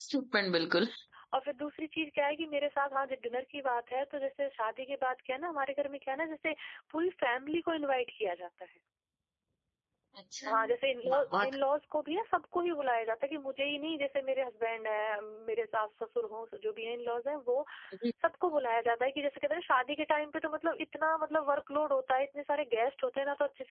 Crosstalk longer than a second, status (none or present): none